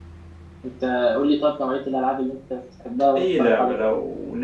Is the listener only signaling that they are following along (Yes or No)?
No